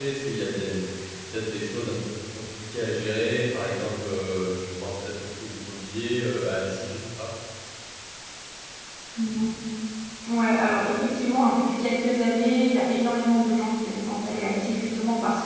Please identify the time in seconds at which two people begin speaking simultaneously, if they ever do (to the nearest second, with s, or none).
none